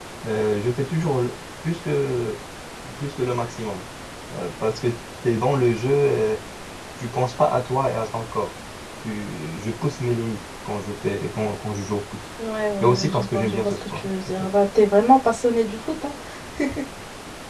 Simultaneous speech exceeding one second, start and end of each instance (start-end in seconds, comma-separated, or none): 12.8-14.4